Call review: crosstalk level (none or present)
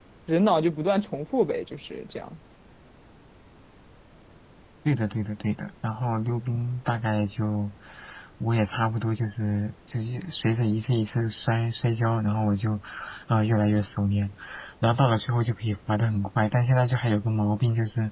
none